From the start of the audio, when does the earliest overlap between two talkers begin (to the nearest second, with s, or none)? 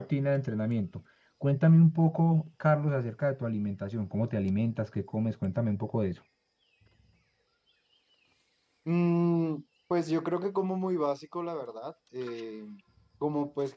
none